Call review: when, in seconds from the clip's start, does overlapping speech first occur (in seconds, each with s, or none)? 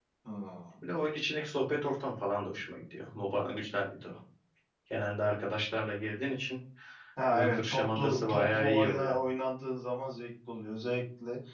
7.3 s